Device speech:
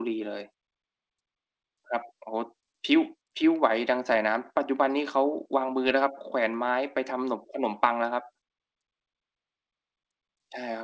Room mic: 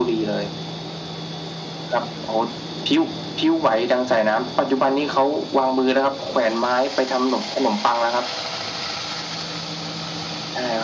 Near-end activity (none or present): none